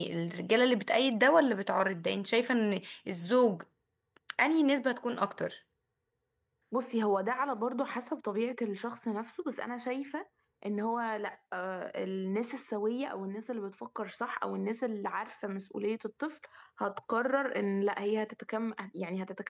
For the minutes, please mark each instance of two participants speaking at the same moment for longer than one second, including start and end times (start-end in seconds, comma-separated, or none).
none